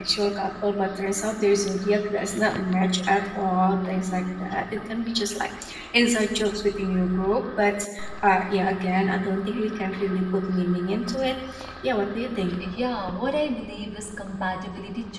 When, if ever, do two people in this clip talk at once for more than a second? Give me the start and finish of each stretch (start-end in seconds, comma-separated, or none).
none